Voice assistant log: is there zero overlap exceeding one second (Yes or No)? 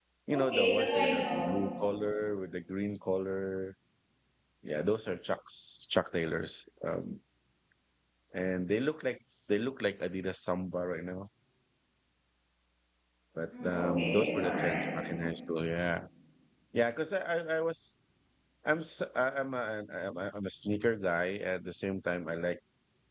No